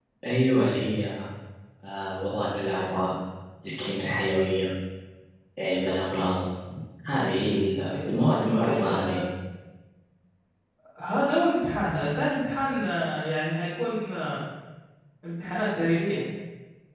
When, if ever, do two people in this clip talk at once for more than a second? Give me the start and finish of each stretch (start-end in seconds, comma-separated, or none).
7.9-9.2